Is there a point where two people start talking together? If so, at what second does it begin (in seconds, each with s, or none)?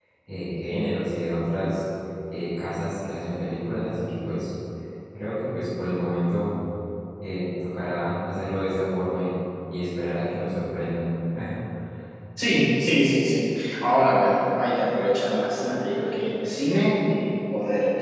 none